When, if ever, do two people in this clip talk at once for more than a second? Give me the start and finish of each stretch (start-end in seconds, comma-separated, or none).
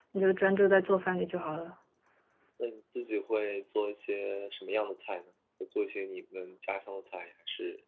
none